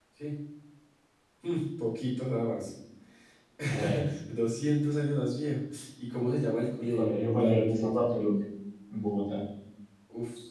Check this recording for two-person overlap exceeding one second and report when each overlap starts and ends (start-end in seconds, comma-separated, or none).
6.9-8.3